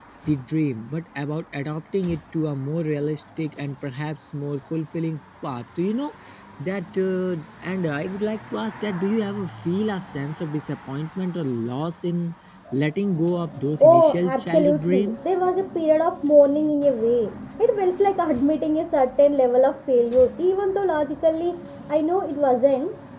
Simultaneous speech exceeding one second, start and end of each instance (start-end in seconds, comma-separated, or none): 13.8-15.2